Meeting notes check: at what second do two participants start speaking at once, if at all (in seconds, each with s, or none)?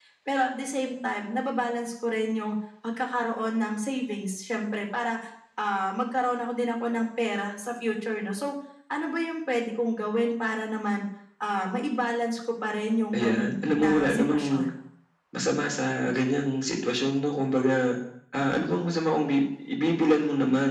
13.2 s